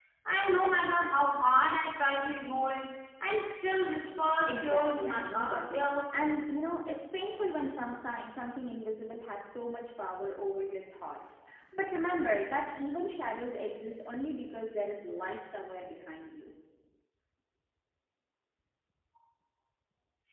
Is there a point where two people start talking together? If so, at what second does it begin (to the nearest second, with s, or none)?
4 s